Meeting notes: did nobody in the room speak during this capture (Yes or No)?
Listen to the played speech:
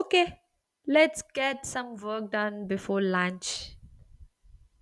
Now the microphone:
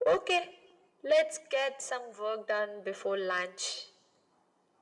Yes